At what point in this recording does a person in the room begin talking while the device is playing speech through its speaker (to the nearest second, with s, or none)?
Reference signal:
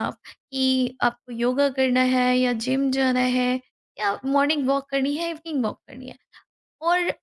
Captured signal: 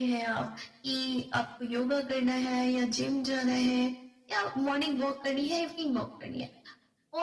none